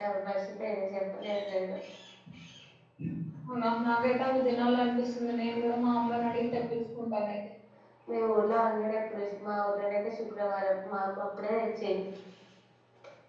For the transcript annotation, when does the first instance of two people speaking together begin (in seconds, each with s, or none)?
none